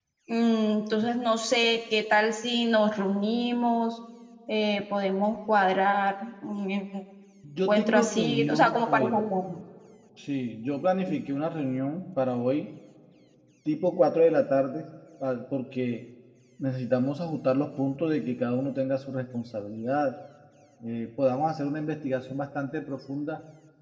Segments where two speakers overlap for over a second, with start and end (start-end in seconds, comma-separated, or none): 7.6-9.2